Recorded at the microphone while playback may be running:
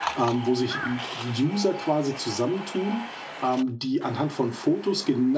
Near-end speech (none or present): present